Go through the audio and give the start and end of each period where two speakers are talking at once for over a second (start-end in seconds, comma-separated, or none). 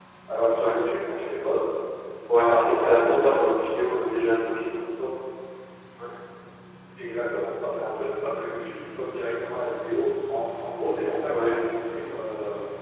2.4-3.7